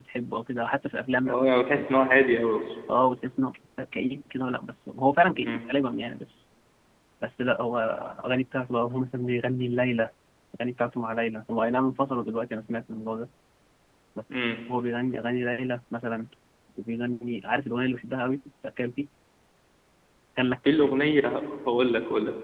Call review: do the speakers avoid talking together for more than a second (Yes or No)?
Yes